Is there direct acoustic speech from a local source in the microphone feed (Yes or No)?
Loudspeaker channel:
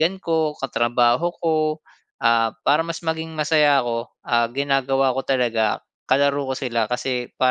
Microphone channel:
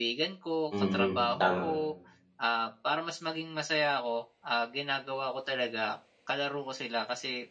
Yes